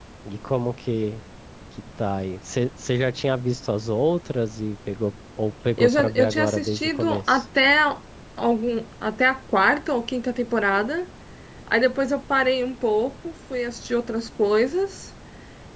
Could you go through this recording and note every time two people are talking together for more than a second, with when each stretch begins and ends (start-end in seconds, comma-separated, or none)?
5.8-7.4